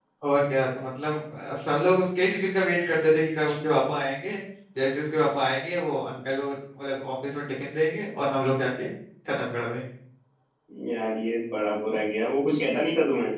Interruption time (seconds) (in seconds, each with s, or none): none